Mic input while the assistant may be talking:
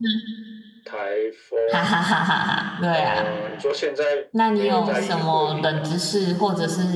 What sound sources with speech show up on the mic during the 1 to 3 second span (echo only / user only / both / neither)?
both